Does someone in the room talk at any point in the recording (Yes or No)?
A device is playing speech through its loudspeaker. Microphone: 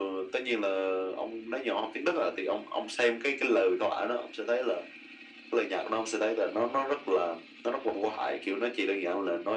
No